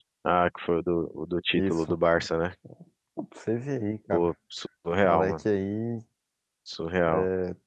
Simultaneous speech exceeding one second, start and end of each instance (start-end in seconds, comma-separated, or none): none